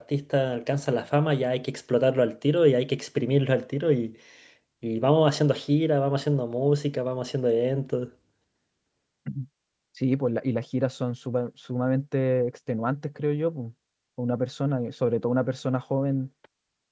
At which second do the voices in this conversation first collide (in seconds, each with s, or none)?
none